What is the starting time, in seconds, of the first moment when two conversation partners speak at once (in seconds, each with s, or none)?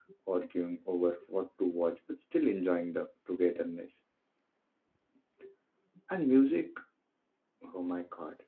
none